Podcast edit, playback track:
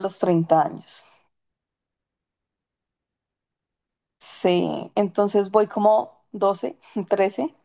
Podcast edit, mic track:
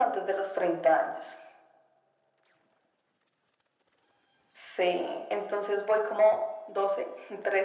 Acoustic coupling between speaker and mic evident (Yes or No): Yes